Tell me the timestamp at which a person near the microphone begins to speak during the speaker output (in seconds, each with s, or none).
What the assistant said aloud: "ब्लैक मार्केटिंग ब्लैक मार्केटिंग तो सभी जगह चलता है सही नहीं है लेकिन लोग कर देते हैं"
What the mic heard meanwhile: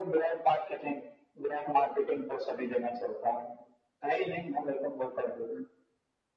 none